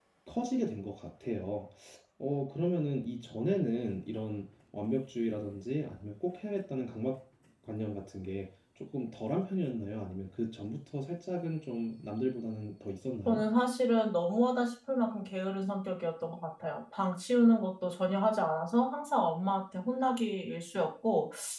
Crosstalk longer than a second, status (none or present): none